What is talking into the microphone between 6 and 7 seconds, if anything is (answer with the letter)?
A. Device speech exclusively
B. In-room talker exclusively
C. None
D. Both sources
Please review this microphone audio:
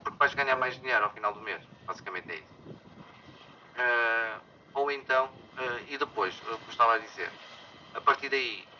A